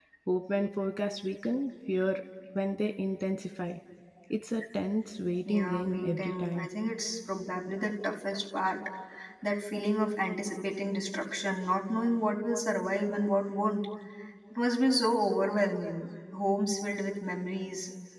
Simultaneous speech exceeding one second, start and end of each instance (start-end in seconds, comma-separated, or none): 5.4-6.7